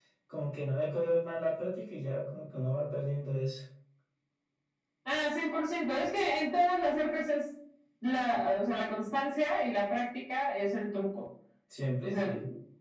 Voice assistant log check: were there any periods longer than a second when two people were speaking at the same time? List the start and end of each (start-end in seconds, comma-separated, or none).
none